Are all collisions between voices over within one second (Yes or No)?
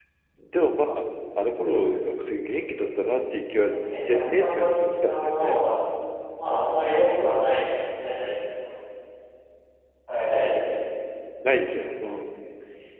No